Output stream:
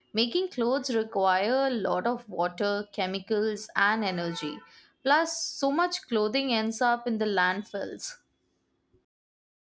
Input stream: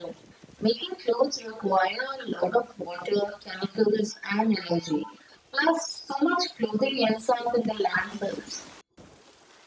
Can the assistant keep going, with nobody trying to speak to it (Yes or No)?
Yes